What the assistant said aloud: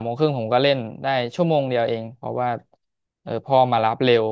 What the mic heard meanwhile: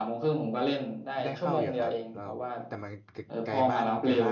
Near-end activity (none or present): present